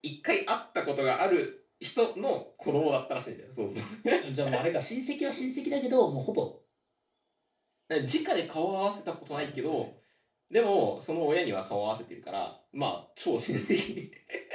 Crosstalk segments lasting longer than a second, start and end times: none

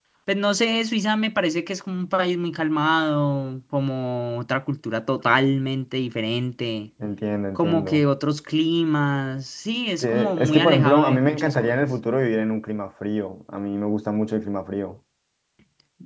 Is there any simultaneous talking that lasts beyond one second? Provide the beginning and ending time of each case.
10.0-11.8

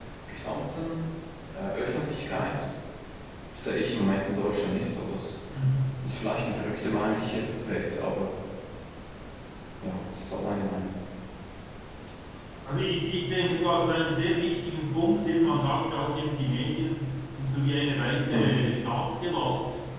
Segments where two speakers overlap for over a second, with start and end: none

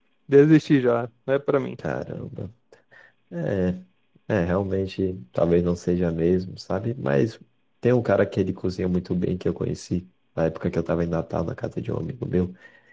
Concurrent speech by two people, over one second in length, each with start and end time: none

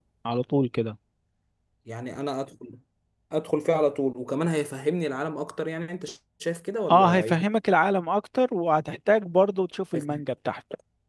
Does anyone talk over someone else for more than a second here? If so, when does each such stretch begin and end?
none

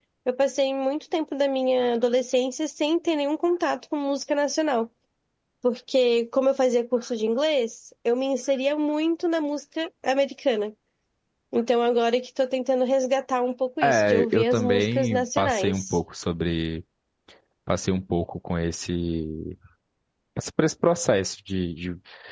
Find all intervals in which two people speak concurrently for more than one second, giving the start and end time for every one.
13.8-16.0

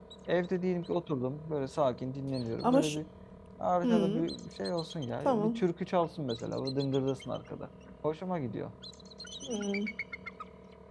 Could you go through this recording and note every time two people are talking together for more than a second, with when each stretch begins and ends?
none

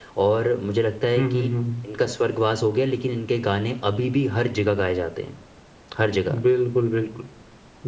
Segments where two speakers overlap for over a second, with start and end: none

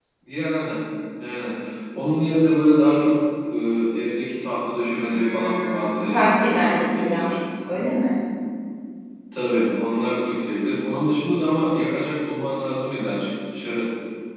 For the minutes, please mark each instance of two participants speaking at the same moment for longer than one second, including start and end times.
5.1-7.3

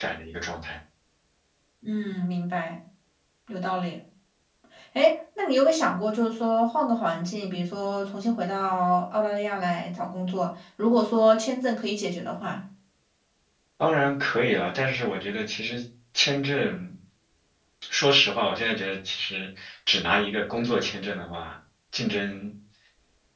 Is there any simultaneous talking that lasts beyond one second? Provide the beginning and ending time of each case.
none

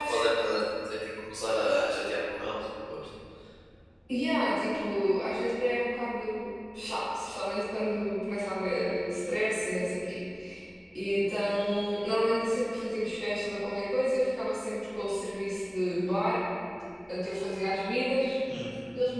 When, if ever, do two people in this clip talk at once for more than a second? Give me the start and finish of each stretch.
none

